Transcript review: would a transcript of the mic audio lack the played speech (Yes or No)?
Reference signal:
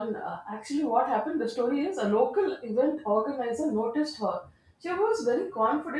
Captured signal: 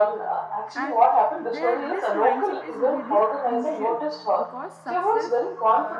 No